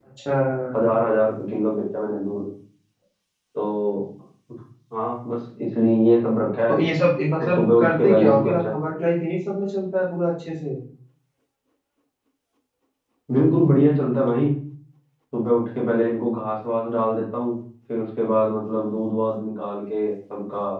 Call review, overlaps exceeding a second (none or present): present